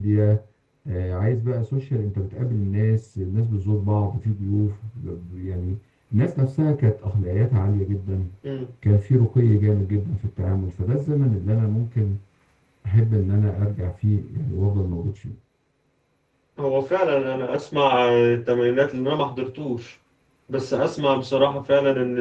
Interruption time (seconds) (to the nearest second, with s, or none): none